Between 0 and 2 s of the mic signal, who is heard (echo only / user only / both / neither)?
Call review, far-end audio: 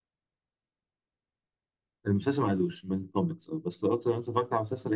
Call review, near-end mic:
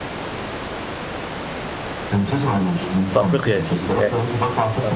neither